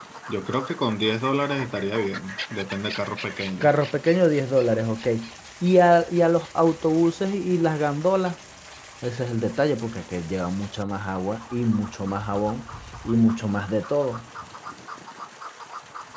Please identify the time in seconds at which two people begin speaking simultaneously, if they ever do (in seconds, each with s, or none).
none